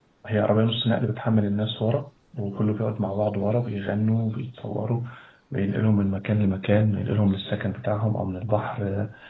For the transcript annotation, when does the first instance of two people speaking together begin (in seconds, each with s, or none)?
none